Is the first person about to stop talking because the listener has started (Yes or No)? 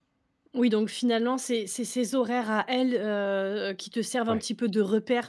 No